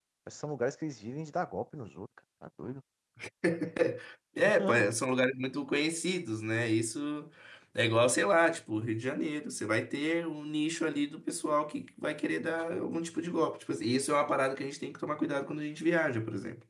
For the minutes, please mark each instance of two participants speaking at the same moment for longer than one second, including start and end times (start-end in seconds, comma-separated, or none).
none